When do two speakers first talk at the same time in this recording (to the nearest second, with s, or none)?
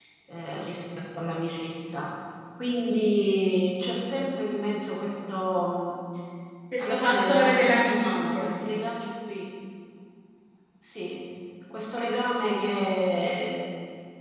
7 s